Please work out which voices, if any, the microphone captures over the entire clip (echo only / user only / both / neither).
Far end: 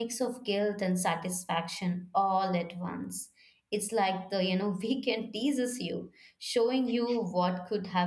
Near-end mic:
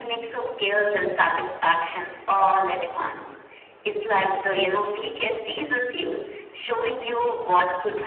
echo only